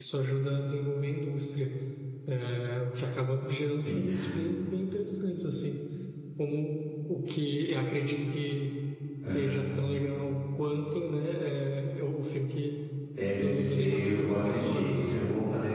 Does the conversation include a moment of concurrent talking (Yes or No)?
Yes